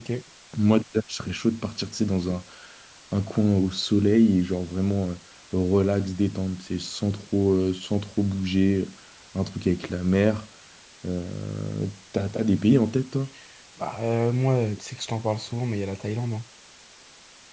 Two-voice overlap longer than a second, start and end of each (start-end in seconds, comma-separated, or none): none